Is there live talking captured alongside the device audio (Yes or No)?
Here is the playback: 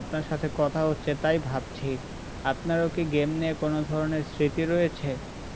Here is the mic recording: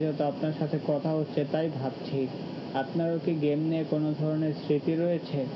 No